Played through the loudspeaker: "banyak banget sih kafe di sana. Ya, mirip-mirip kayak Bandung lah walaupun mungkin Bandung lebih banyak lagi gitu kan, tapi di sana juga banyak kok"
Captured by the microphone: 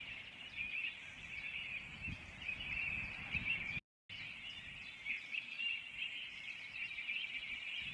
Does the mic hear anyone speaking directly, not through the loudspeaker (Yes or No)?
No